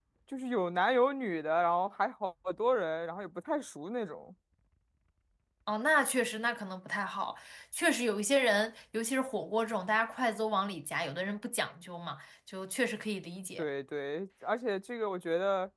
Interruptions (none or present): none